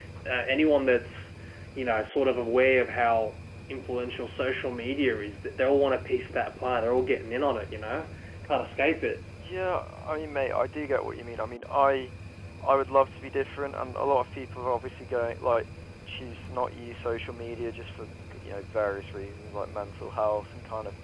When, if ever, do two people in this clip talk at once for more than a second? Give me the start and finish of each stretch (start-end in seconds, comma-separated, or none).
none